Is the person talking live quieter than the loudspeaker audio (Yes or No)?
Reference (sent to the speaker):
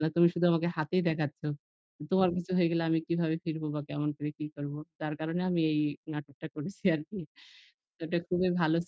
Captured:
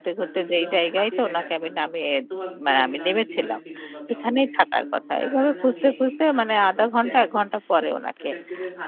No